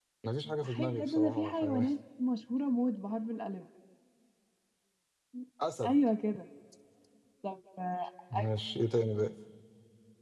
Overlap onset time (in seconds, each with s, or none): 0.6 s